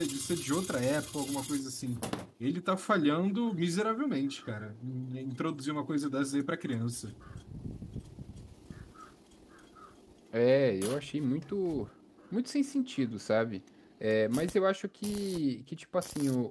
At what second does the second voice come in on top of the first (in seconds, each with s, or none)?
none